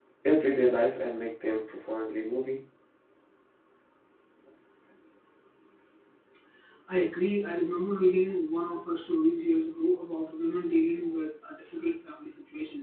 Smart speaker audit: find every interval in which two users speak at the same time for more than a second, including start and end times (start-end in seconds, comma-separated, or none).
none